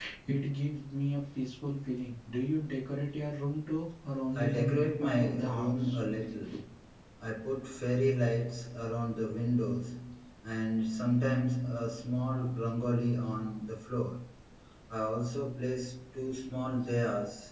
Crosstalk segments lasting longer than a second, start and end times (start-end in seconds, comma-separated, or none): 4.4-5.8